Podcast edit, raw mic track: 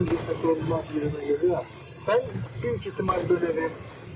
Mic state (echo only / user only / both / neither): echo only